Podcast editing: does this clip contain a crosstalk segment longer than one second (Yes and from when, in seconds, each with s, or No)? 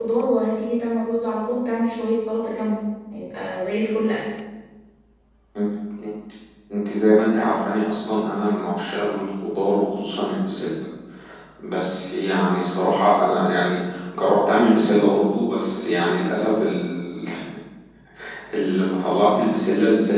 No